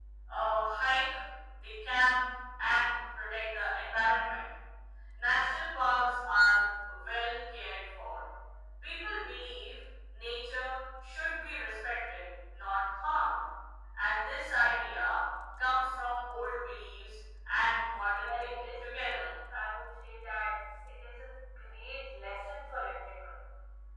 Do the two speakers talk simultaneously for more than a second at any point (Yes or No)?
Yes